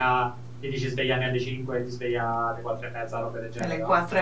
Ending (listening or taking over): taking over